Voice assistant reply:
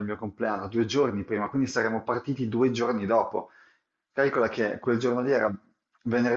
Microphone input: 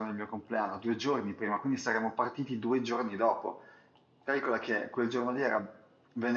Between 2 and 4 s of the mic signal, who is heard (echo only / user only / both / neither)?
echo only